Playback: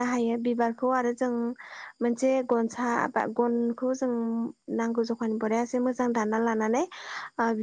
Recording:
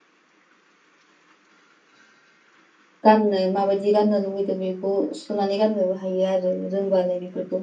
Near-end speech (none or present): present